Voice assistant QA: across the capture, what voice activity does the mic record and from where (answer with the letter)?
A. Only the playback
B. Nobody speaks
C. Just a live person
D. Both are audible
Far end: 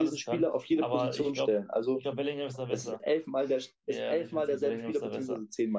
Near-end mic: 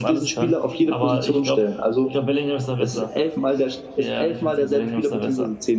A